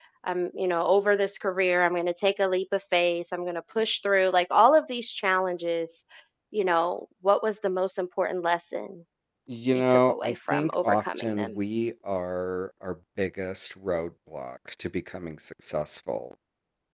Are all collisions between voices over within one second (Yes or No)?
No